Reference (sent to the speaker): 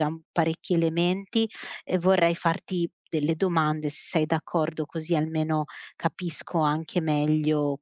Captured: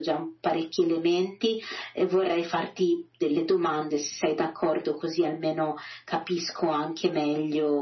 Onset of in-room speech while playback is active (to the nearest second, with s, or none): none